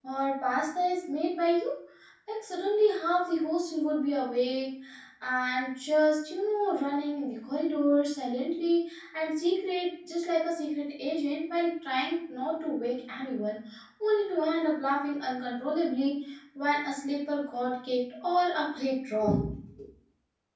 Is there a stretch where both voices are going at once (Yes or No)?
No